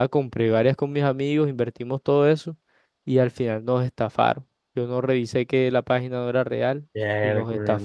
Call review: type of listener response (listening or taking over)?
taking over